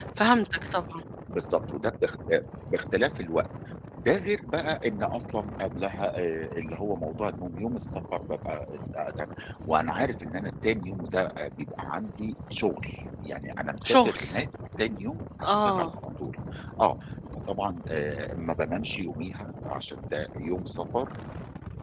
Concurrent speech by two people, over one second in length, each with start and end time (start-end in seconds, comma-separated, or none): none